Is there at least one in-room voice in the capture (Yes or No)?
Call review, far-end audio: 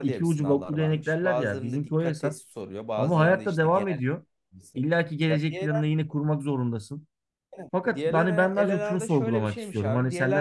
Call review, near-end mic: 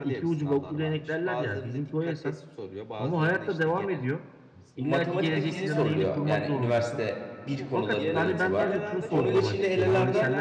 Yes